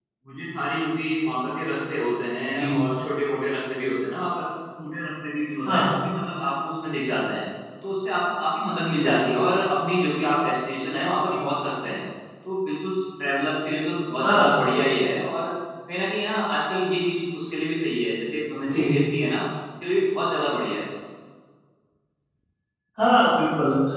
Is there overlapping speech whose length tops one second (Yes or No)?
No